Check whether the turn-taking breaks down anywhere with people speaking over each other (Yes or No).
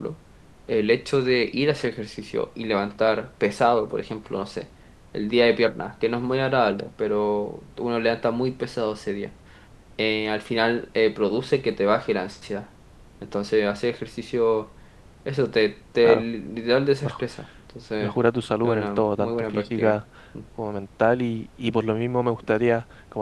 Yes